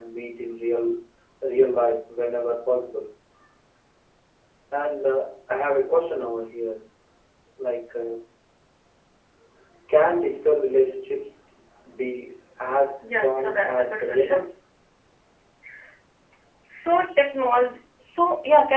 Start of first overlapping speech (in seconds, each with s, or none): 13.0 s